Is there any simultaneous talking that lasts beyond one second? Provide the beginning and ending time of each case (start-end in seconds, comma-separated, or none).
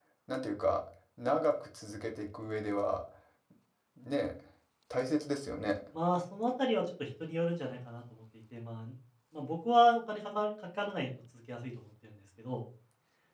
none